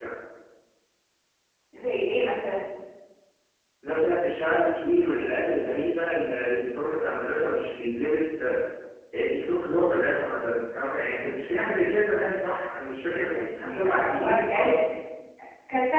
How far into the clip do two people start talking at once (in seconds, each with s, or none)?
13.2 s